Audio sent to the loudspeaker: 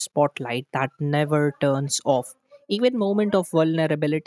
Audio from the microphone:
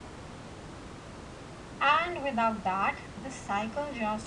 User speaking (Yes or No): Yes